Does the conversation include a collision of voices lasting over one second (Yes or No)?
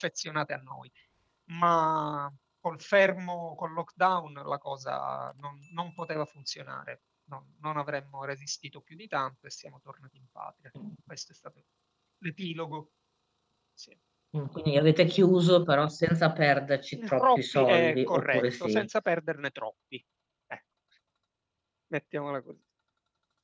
Yes